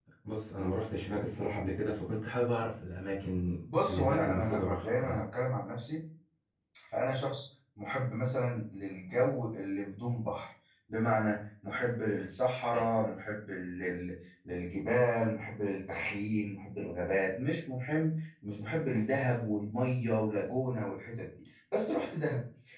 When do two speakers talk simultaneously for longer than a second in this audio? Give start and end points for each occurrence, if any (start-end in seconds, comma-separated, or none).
3.7-5.2